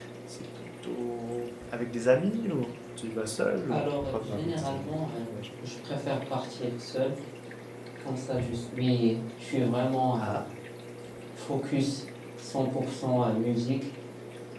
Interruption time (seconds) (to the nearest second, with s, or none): 4 s